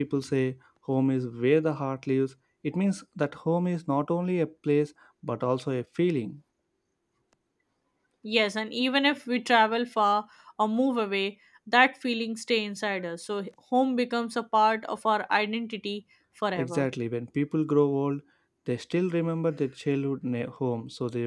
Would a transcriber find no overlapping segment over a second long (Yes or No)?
Yes